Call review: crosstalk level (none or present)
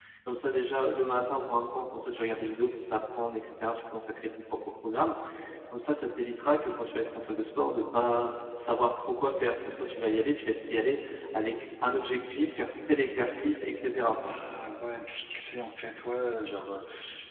none